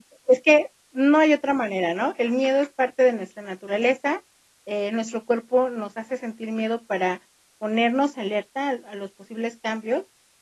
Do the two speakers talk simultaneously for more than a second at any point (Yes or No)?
No